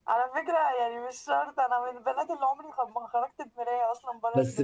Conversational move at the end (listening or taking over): taking over